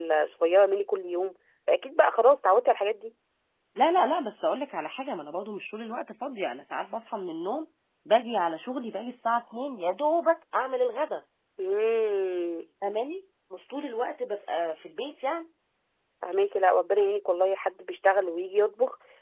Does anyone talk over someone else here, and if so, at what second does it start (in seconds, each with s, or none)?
none